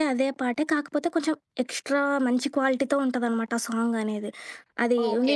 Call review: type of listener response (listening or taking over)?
taking over